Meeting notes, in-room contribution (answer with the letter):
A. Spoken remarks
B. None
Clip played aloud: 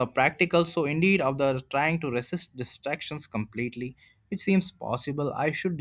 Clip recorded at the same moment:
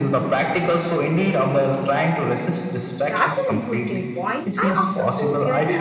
A